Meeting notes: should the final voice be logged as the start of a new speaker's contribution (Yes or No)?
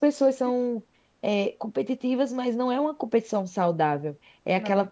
No